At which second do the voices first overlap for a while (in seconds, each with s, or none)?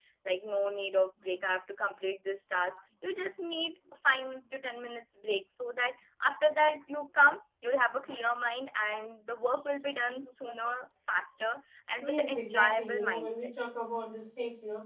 12.0 s